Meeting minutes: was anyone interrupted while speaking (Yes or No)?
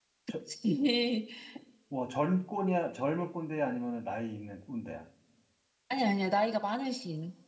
No